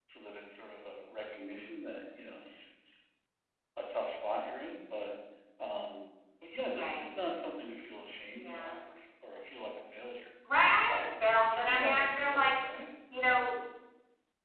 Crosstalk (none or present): present